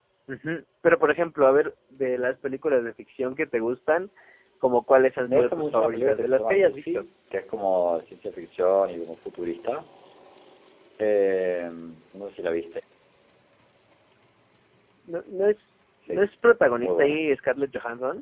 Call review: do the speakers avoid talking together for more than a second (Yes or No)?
No